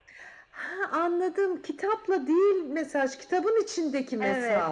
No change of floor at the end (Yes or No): No